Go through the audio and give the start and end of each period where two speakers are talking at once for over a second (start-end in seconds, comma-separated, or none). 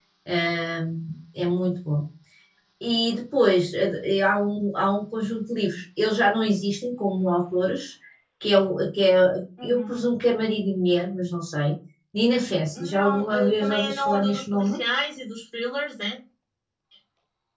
12.7-14.8